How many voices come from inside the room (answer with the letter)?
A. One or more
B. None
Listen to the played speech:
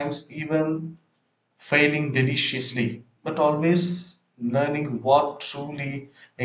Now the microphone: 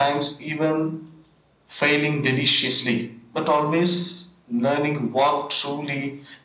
B